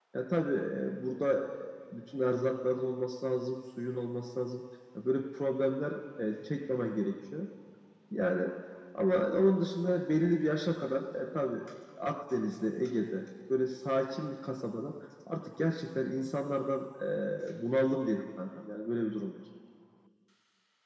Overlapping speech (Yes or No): No